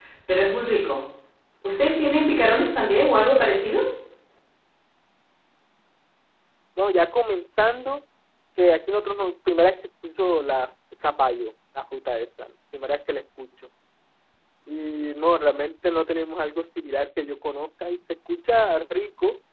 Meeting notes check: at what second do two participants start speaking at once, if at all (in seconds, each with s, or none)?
none